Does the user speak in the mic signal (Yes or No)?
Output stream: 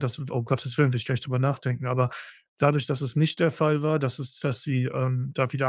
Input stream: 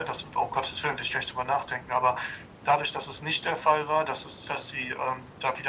No